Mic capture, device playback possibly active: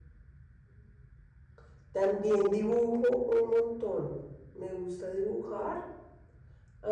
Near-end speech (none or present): present